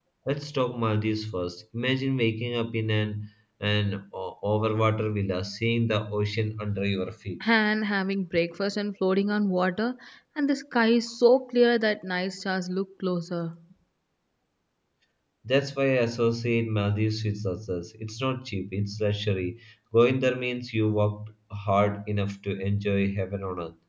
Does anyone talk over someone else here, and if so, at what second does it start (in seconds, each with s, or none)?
none